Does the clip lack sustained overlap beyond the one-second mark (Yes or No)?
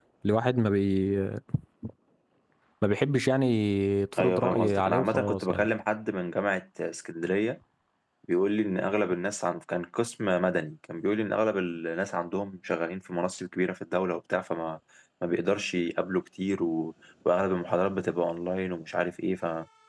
No